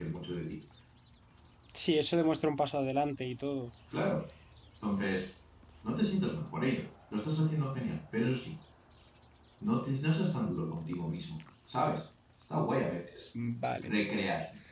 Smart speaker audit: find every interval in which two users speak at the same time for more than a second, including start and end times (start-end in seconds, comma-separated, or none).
none